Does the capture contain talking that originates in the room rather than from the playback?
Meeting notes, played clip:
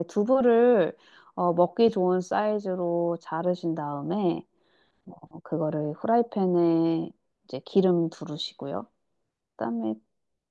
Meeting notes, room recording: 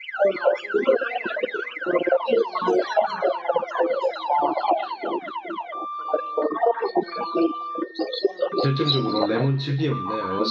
Yes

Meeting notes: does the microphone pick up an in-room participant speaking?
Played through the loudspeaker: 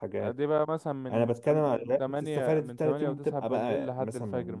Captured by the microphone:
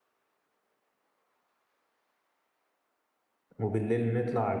Yes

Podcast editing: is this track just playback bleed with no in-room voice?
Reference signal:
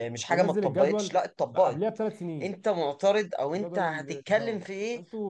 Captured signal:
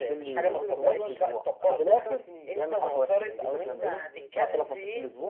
No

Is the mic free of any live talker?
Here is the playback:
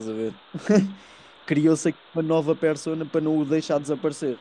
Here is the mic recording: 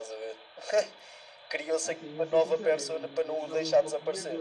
No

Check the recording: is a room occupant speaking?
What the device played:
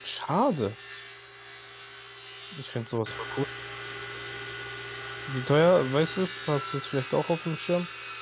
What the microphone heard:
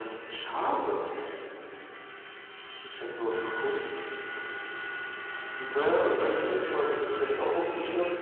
No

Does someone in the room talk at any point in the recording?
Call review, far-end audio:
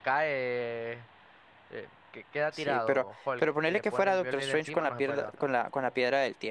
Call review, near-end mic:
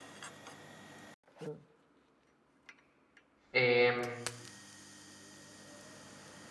Yes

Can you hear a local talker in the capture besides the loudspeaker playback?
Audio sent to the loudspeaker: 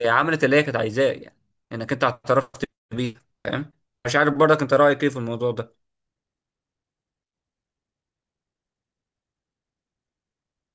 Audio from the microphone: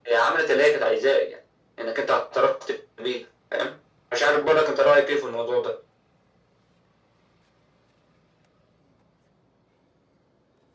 No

